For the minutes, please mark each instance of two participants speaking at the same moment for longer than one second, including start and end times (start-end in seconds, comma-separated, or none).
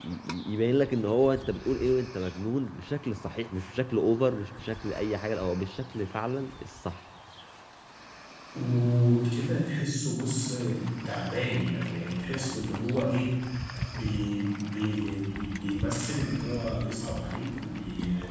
none